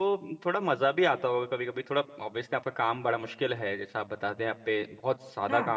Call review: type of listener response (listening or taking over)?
listening